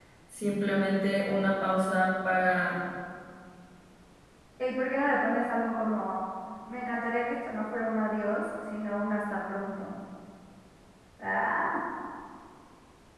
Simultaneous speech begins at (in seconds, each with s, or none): none